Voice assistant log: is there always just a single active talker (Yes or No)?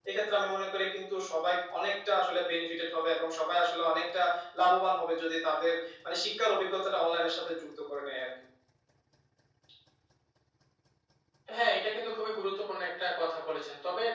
Yes